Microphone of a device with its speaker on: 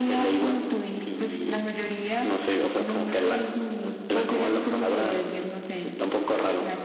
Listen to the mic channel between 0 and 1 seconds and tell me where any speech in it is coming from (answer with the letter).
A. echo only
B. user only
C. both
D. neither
A